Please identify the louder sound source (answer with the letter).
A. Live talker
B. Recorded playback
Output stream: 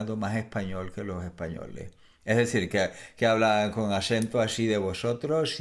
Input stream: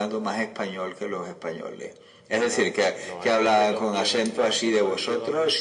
B